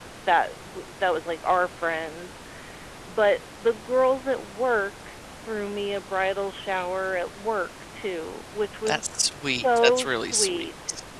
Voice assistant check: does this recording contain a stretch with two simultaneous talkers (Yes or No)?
Yes